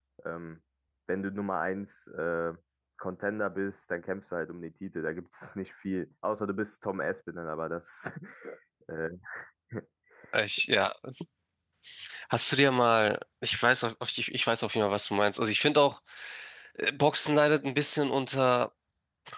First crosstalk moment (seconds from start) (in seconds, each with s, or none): none